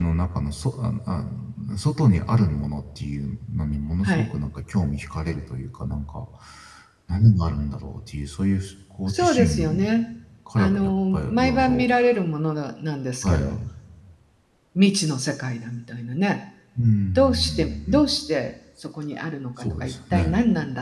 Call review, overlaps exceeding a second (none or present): present